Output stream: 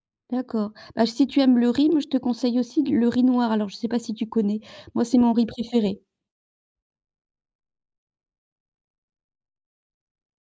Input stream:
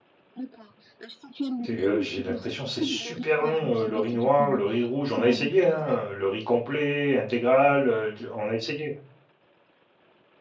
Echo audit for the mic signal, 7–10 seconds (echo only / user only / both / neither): user only